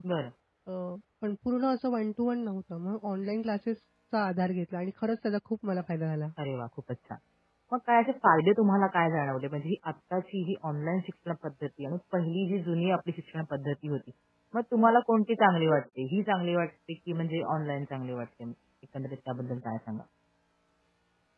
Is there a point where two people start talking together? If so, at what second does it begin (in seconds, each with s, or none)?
none